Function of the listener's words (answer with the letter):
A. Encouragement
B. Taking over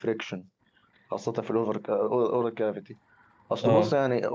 A